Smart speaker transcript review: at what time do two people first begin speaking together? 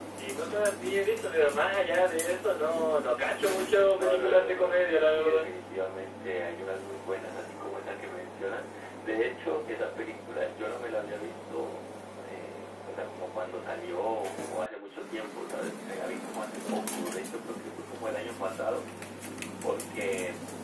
3.9 s

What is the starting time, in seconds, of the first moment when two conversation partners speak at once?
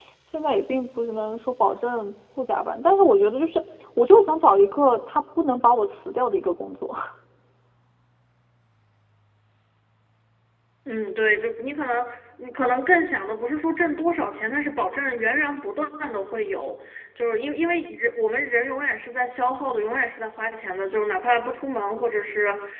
none

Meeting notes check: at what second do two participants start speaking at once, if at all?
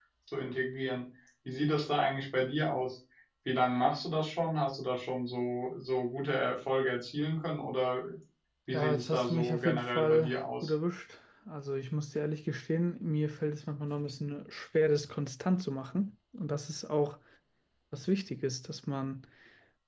8.7 s

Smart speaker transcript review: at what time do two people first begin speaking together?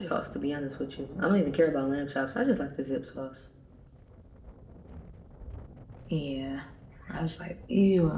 none

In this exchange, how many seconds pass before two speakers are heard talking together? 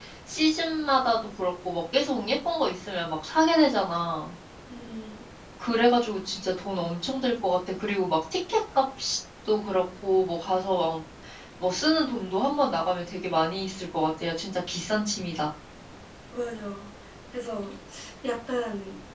none

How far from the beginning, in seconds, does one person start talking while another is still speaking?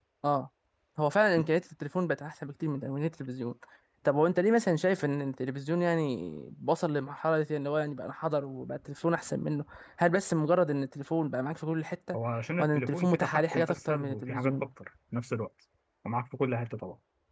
12.6 s

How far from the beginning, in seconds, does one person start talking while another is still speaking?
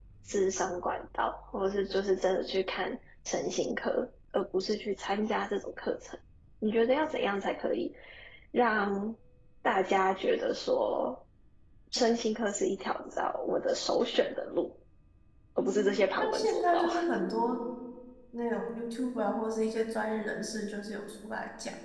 15.6 s

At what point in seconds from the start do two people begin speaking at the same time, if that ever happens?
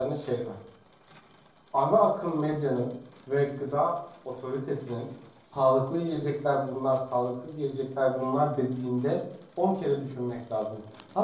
none

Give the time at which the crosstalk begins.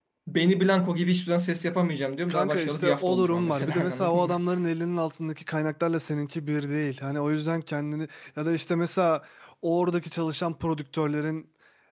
2.2 s

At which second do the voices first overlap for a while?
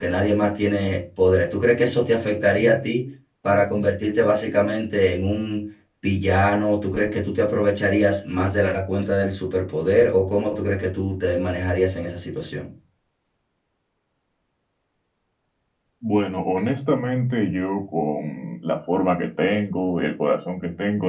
none

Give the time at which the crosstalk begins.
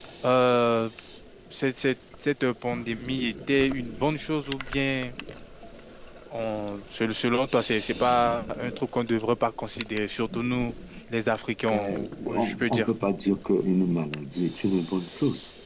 11.7 s

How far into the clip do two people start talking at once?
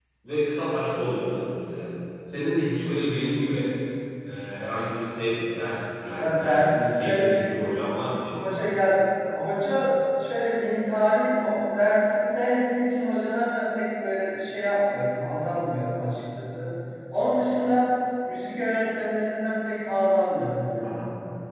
6.2 s

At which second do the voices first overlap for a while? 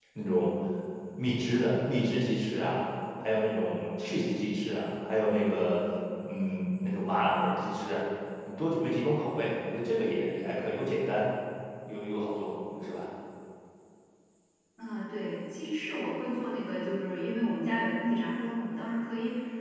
none

